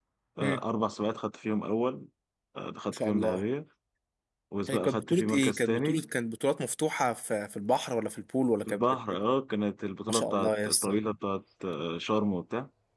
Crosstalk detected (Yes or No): Yes